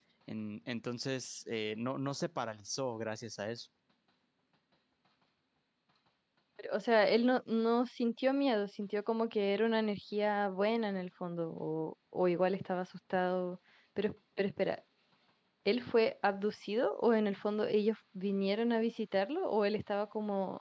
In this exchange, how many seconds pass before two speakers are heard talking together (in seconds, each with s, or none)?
none